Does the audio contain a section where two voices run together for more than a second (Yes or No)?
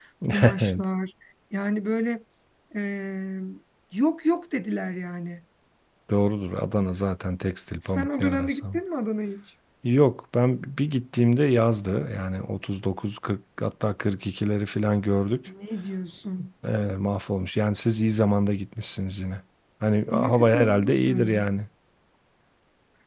Yes